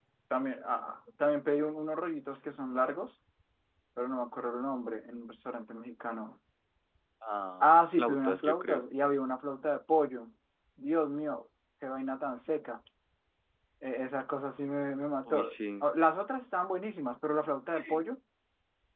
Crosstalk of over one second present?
Yes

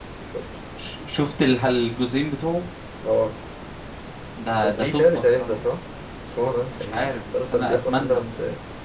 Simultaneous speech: Yes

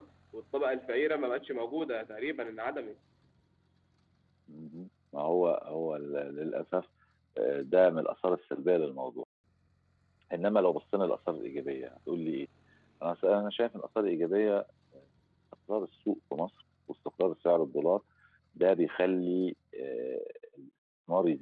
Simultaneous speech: No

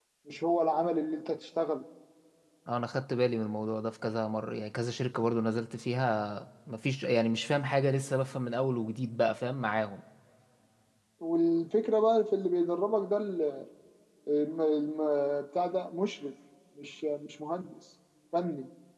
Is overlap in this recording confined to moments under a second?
Yes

